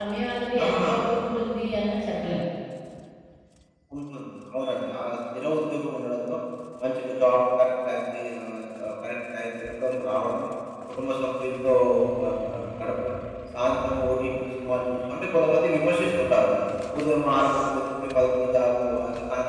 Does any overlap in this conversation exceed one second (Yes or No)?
No